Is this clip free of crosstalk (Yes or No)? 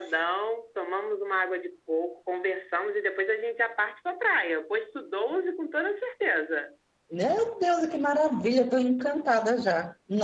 Yes